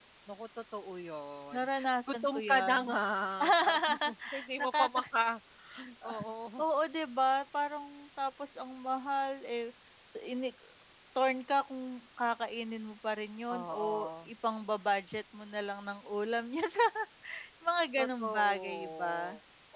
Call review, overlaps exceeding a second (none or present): present